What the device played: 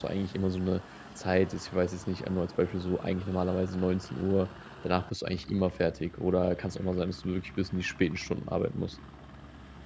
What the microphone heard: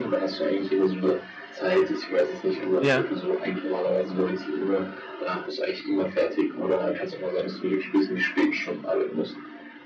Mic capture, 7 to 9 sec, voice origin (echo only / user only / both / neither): echo only